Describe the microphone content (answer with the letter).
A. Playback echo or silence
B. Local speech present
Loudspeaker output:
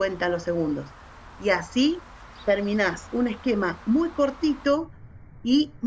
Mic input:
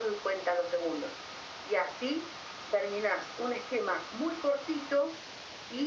A